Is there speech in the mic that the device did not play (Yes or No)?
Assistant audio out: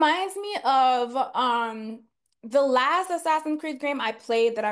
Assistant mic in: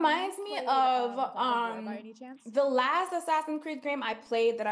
Yes